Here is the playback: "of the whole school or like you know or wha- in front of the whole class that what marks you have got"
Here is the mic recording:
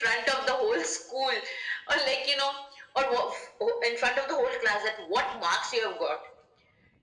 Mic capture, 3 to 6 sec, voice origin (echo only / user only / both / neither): echo only